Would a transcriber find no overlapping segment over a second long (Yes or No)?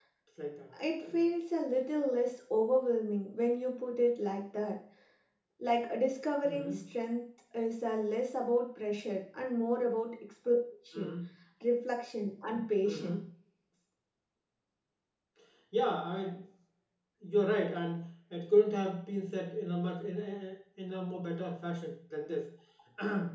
Yes